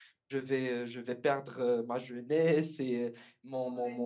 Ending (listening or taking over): listening